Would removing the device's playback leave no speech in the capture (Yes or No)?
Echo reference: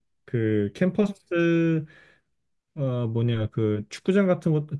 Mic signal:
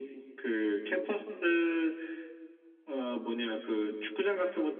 Yes